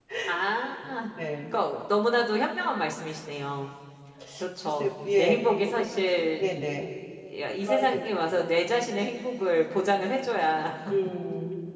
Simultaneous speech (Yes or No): Yes